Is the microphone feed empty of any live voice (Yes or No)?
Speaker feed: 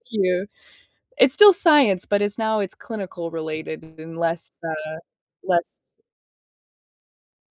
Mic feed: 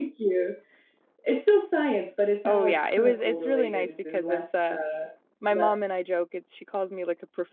No